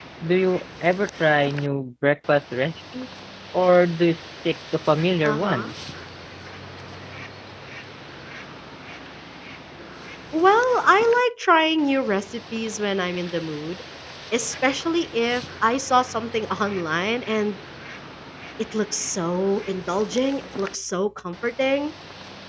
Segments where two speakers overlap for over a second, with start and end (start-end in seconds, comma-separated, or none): none